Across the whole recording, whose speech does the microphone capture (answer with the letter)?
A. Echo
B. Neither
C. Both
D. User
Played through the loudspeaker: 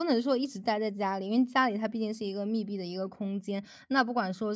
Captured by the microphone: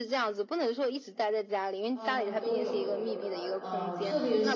C